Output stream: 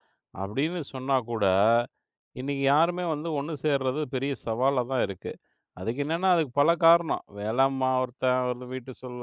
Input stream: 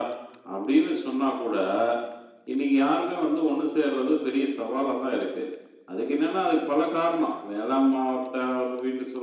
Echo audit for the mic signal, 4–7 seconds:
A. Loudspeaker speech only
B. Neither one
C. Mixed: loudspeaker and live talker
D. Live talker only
A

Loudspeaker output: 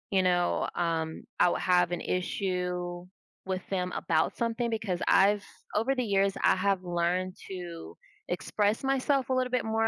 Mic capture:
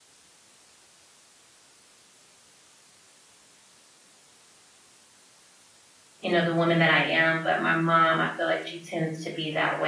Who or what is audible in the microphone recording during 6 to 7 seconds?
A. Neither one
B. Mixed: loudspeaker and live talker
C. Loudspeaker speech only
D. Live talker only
D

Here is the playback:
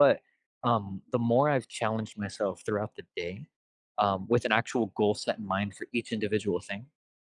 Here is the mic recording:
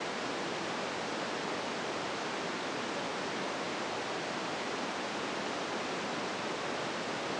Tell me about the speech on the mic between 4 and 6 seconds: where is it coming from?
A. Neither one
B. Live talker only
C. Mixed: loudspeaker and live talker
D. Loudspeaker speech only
A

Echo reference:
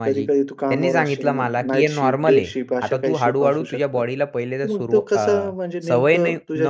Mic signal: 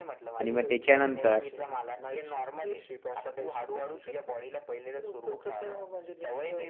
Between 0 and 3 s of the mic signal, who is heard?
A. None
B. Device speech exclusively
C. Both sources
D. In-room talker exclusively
C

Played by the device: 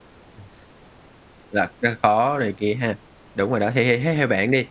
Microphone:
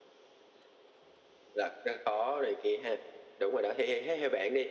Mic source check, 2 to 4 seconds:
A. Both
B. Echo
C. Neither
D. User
B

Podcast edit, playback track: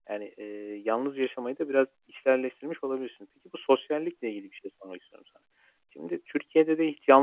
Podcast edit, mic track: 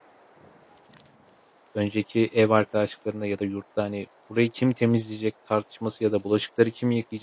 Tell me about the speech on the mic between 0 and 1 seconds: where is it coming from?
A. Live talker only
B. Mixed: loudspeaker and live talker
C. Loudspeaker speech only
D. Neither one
D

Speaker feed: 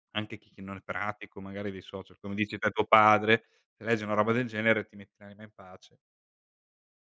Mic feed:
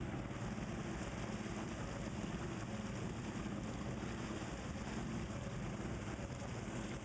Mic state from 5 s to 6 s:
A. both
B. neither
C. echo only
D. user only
B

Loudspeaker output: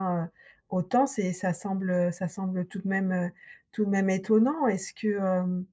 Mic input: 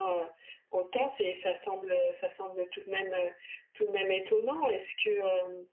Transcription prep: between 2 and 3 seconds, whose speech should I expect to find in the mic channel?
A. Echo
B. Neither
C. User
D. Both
A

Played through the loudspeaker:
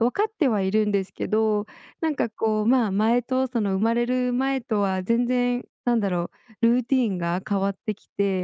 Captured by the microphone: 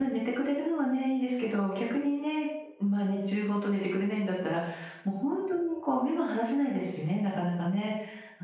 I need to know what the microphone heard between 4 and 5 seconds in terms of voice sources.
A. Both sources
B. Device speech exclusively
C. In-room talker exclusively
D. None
C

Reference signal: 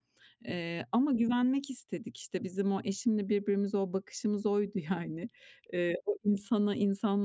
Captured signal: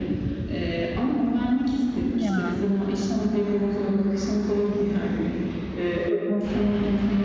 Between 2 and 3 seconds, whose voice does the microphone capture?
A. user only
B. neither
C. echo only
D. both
D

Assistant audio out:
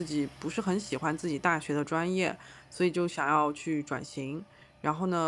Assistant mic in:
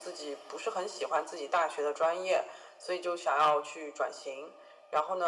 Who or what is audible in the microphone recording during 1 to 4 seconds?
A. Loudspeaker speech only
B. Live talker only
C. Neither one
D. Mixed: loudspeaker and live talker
A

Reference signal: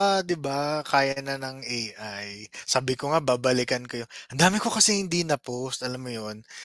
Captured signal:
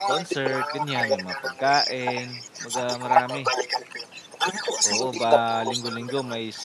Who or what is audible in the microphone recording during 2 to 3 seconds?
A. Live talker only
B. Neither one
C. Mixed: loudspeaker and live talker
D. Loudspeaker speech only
C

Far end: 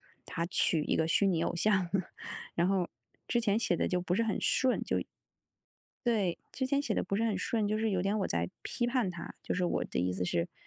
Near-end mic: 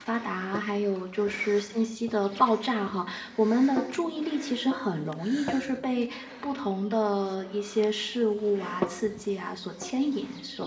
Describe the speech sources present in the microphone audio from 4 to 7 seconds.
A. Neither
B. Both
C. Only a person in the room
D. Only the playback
C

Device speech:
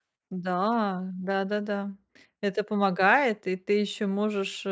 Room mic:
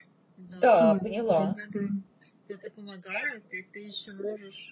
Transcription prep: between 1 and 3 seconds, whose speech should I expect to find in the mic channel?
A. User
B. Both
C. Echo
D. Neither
B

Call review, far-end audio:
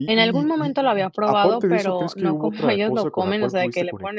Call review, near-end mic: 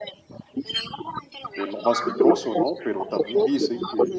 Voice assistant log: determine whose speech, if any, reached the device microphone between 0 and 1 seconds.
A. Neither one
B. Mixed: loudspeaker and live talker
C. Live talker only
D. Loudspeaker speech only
D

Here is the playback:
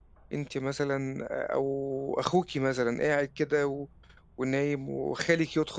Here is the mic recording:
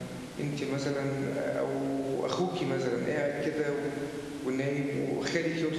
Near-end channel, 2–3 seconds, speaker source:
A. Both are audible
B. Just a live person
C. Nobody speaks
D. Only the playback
D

